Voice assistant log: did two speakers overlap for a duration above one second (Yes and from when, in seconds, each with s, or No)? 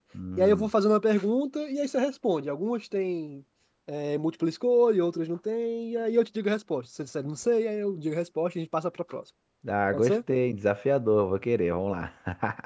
No